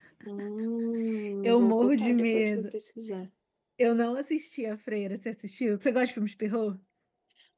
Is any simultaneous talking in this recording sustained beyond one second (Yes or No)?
Yes